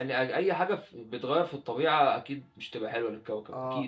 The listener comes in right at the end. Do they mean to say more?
Yes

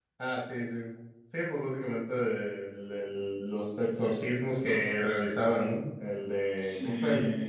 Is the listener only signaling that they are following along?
Yes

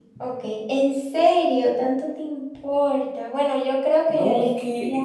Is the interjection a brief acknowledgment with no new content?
No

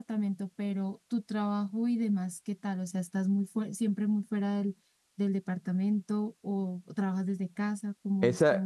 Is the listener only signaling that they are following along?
No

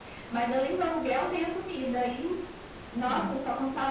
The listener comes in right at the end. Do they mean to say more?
No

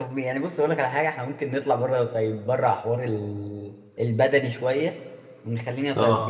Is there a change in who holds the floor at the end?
No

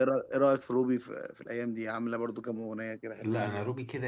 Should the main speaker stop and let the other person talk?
Yes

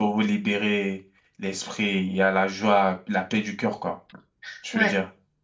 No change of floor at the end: No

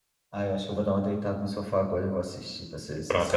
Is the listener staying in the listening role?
No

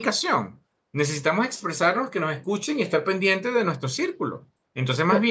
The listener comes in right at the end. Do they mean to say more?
No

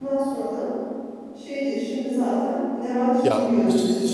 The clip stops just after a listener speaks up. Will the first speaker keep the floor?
No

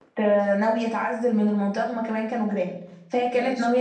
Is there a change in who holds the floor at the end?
No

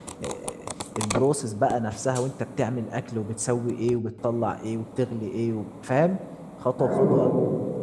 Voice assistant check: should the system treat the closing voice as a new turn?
Yes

